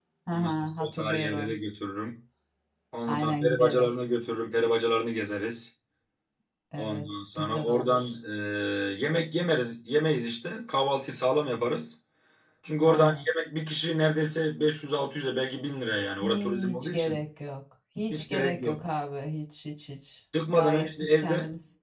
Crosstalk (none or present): present